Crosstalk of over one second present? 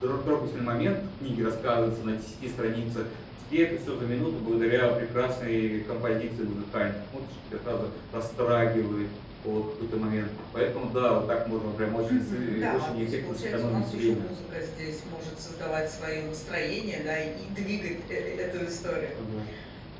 Yes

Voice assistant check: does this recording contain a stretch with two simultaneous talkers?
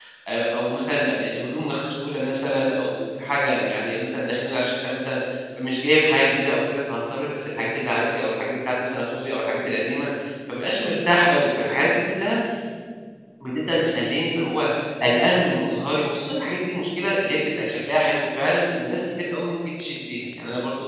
No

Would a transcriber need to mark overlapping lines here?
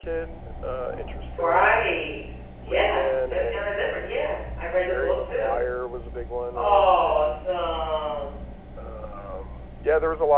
Yes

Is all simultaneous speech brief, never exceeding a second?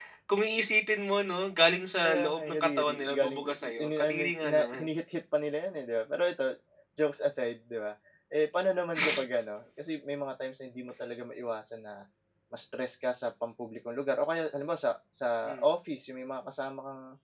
No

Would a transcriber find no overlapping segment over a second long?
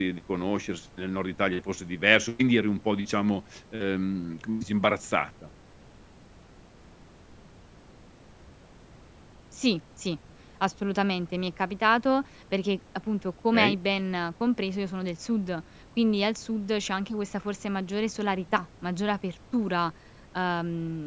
Yes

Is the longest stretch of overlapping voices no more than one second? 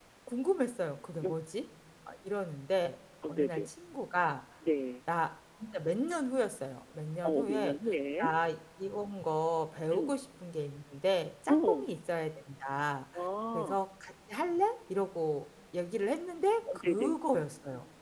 Yes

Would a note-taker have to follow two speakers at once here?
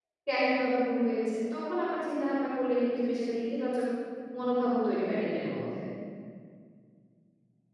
No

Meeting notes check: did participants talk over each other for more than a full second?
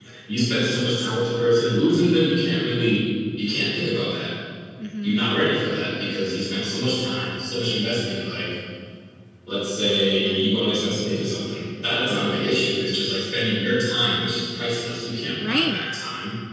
No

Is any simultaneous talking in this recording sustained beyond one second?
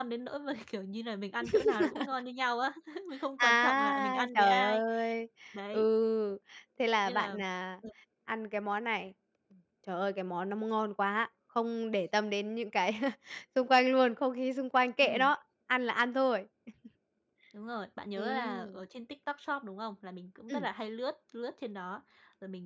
Yes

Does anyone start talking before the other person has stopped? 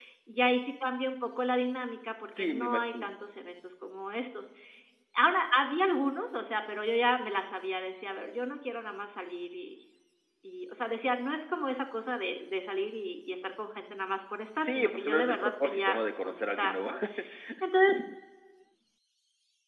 Yes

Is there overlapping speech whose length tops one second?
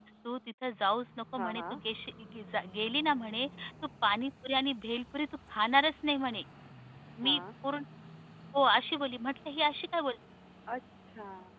No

